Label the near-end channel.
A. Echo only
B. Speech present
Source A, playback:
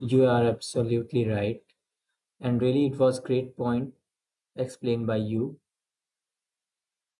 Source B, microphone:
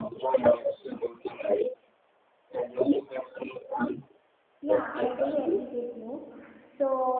B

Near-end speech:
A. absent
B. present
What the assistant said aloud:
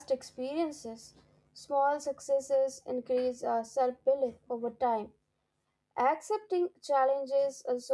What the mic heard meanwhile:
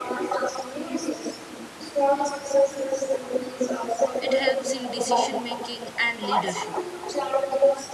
B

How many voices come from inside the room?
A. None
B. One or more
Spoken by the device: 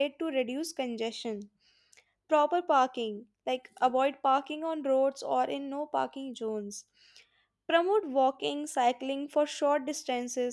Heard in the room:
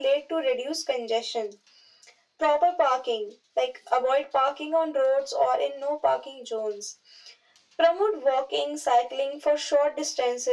A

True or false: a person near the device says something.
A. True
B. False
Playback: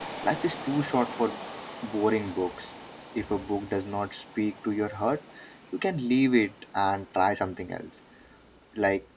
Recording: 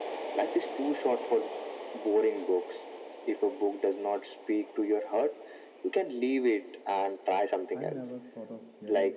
A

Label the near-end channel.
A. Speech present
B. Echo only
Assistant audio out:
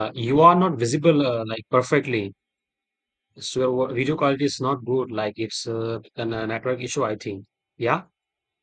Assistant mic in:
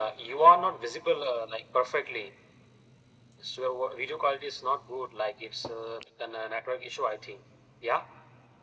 B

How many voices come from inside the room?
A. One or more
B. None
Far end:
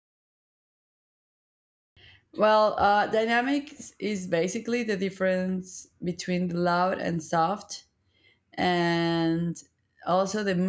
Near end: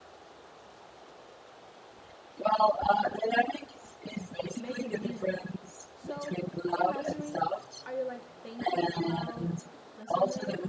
A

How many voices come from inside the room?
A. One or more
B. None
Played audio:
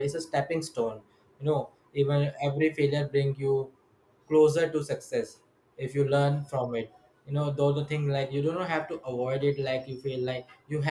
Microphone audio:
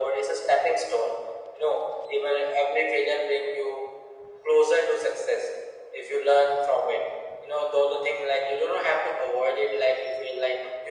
B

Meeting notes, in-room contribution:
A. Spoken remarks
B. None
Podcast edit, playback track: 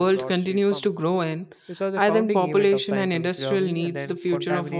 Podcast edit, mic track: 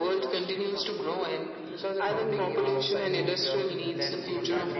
A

